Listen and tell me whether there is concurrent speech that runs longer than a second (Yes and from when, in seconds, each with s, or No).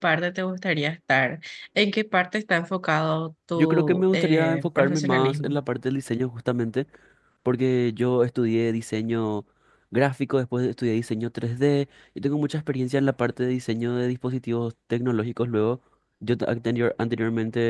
Yes, from 3.6 s